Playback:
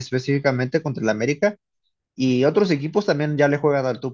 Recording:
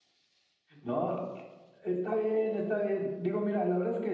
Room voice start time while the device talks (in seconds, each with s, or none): 0.8 s